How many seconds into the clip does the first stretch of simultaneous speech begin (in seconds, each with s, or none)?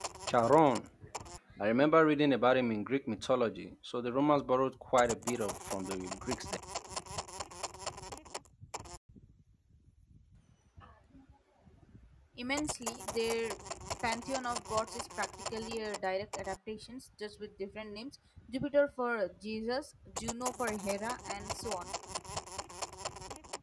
none